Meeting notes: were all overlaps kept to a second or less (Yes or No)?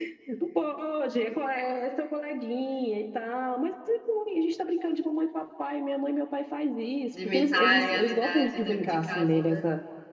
No